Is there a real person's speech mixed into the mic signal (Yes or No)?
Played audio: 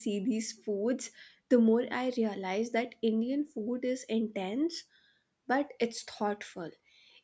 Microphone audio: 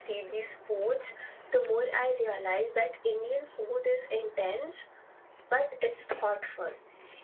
No